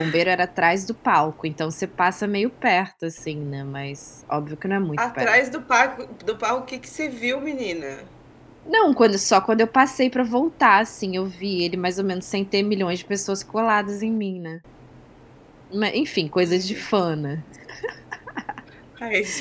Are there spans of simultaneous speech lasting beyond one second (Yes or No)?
No